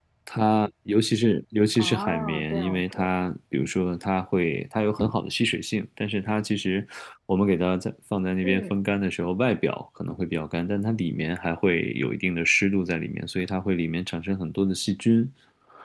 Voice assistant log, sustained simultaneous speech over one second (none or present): present